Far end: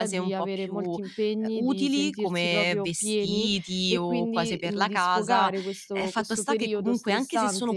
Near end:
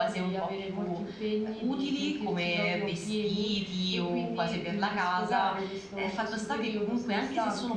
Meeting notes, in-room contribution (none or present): none